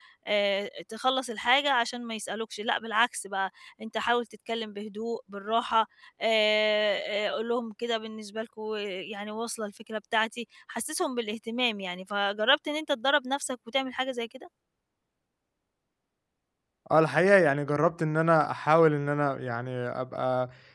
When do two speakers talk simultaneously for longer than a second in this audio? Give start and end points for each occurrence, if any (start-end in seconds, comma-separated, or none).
none